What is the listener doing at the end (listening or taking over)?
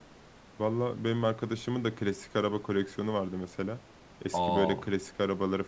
listening